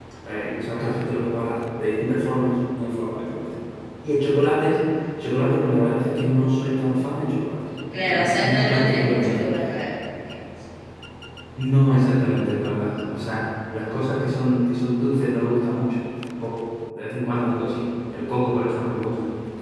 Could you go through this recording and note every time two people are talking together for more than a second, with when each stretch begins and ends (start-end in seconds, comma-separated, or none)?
8.0-9.4